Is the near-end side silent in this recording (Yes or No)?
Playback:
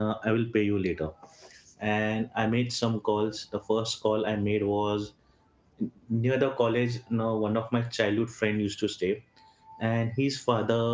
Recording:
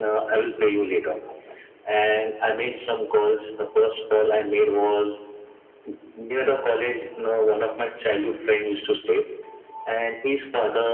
Yes